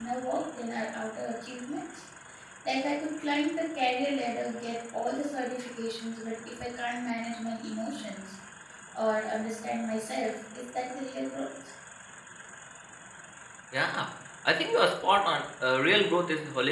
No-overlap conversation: Yes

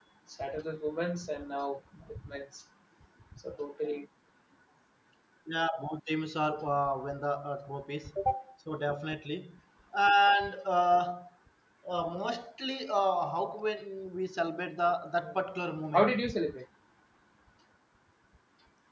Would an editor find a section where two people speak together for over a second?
No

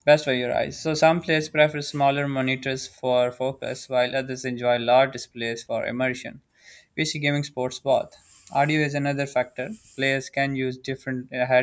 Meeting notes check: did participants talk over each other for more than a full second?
No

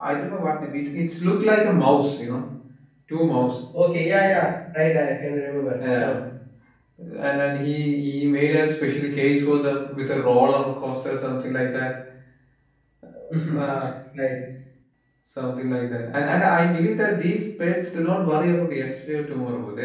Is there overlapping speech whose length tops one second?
No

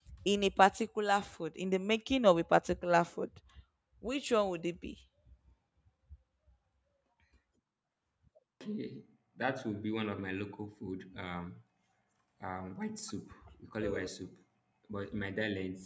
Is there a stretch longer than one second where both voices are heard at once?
No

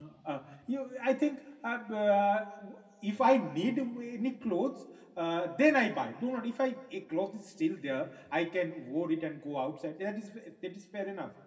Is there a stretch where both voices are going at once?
No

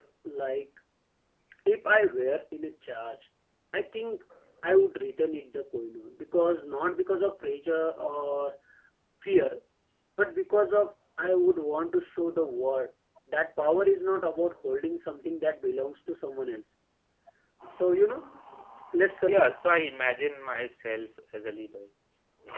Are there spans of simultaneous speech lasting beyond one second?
No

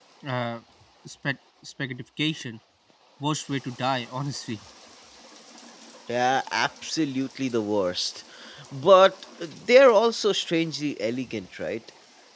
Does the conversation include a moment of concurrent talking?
No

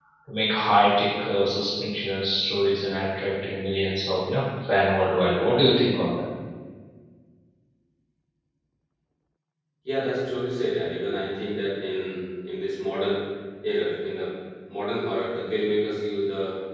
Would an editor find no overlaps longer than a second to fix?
Yes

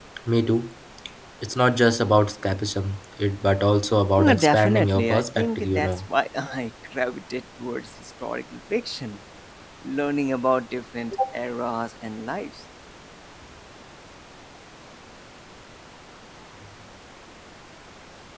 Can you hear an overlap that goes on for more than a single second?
Yes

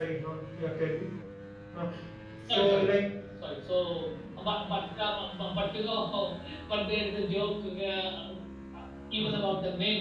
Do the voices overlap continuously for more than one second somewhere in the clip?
No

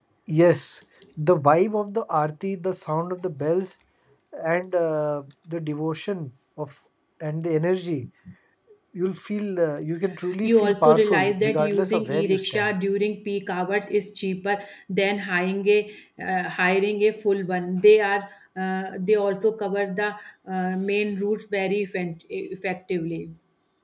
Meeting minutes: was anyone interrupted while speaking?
Yes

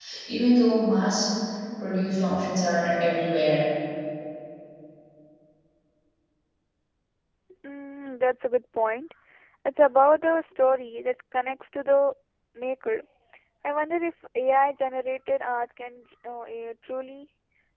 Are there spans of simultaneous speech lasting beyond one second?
No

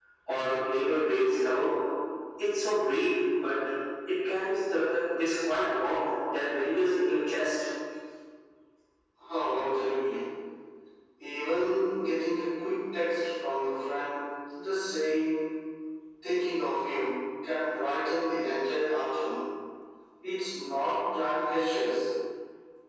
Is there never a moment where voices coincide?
Yes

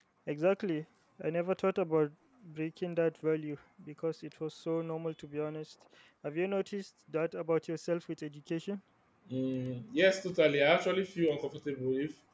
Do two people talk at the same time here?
No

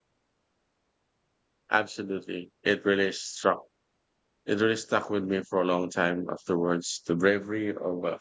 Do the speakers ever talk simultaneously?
No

